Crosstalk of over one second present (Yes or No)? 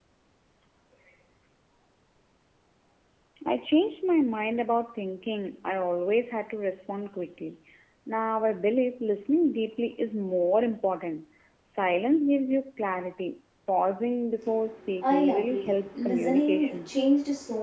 Yes